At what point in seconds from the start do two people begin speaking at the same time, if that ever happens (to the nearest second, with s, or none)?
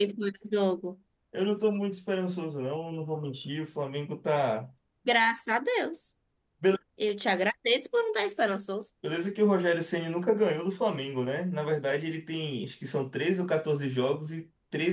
none